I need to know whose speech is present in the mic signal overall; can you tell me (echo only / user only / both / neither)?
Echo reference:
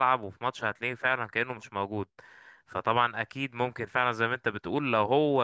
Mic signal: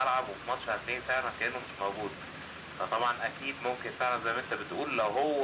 echo only